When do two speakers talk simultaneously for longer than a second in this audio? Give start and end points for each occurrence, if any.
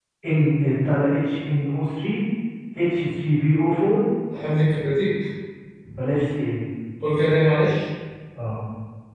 none

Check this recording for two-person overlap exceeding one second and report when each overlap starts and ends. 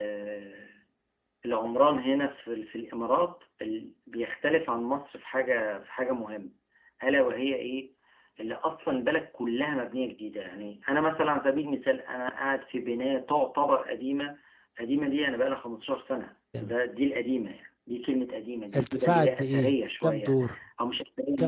18.8-20.4

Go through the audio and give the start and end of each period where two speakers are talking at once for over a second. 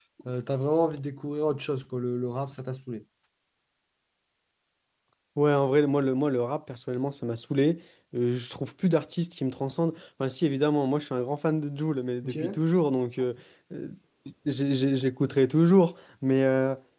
none

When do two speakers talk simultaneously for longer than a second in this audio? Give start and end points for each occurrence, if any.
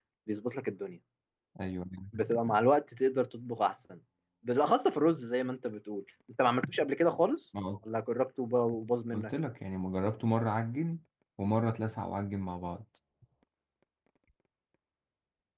none

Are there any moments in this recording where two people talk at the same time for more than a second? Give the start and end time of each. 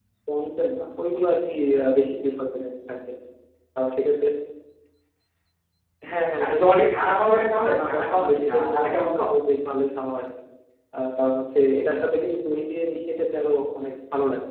7.2-9.1

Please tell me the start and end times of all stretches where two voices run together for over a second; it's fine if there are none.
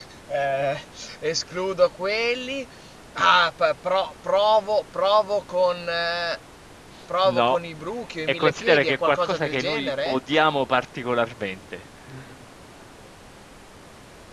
8.3-10.2

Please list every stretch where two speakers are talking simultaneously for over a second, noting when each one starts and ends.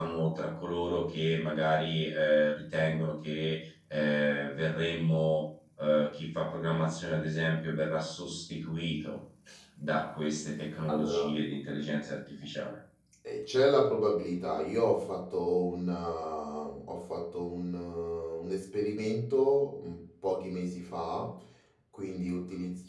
none

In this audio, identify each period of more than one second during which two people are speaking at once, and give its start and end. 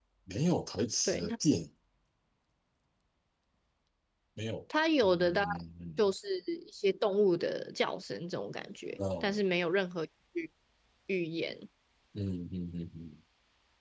none

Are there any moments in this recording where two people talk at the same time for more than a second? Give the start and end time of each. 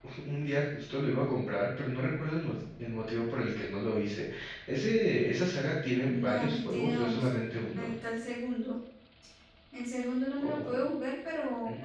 6.0-7.3

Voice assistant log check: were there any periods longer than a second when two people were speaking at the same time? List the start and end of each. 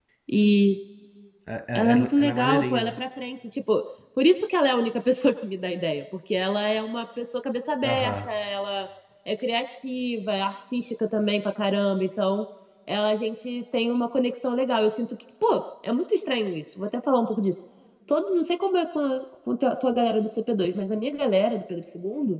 1.8-3.0

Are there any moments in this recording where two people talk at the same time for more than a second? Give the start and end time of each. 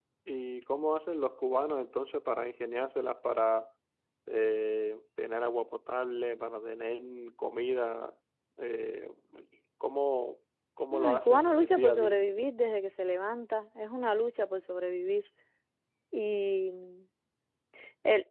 10.9-12.2

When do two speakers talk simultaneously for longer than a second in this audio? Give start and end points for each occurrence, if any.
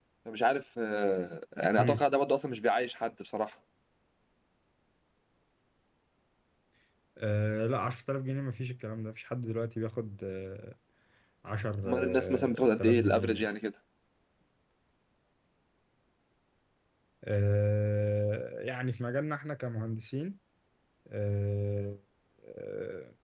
11.8-13.5

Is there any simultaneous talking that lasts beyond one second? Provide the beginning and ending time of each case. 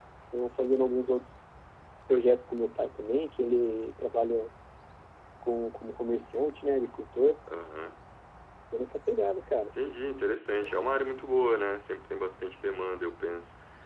none

